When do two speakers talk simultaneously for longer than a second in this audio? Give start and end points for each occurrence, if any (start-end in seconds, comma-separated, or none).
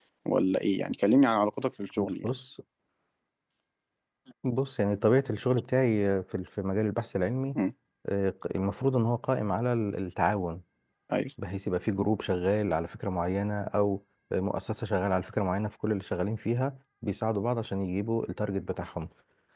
none